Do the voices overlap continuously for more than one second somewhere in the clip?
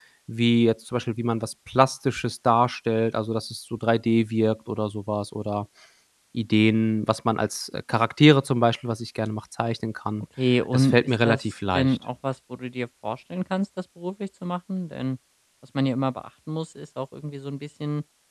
Yes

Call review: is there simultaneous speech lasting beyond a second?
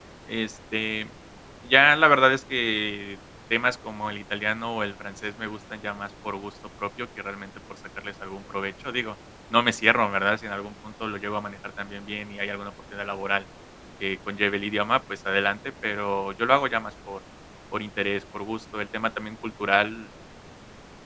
No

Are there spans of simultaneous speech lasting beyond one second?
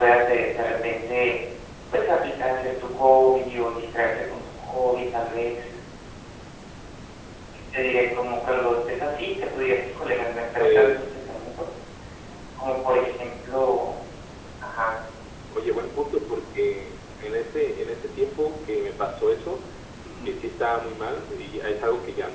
No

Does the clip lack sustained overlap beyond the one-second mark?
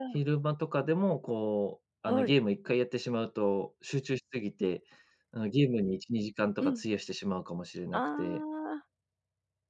Yes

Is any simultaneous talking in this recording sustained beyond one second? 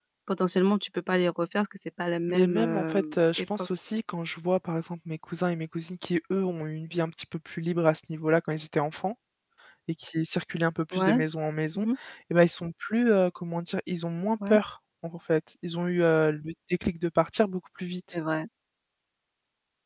Yes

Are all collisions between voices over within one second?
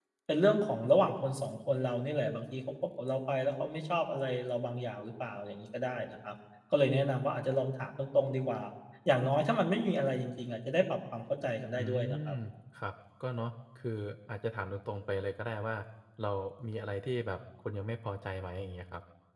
Yes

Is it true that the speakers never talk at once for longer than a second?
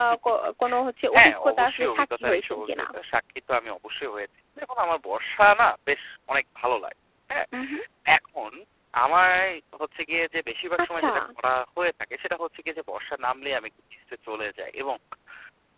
No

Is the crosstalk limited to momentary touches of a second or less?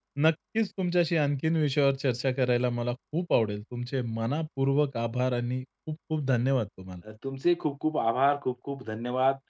Yes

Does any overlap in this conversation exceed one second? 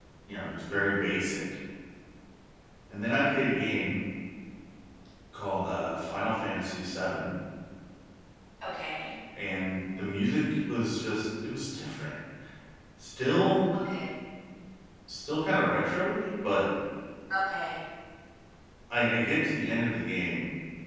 No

